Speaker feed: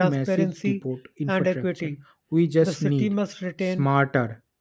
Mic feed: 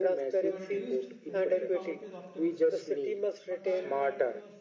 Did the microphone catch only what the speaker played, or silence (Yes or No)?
No